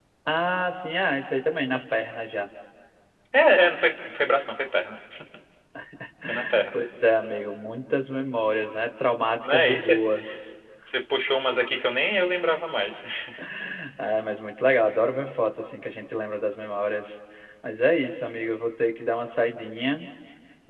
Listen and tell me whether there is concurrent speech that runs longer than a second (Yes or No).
No